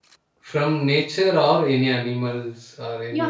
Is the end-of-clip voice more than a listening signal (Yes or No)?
Yes